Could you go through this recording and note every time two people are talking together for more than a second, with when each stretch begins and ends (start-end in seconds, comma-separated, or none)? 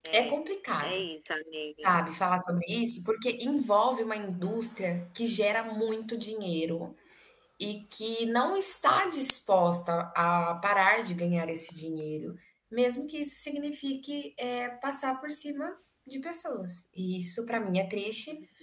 none